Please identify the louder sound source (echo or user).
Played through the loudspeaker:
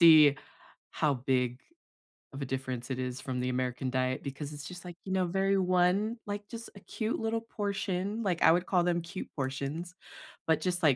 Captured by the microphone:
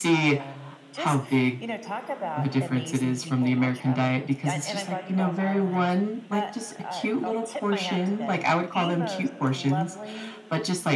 echo